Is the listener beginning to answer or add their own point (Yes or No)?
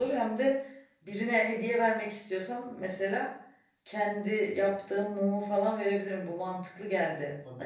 Yes